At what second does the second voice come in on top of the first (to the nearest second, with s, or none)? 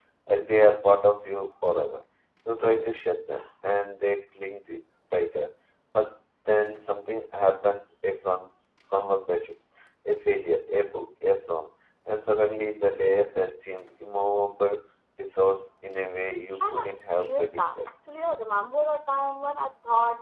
17 s